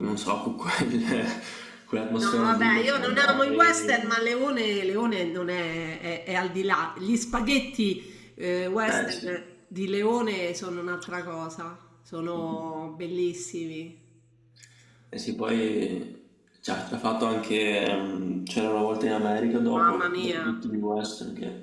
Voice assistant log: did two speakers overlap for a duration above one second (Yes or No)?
Yes